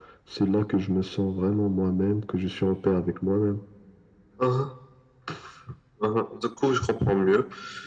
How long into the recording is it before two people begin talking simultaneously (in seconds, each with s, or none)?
none